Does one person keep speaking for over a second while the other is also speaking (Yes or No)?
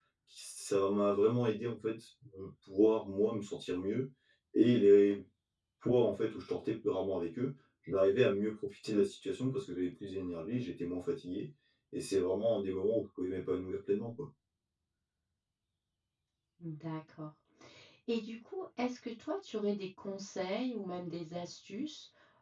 No